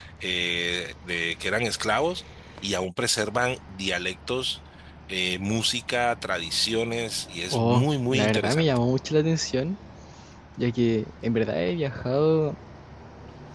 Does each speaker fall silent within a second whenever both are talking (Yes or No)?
No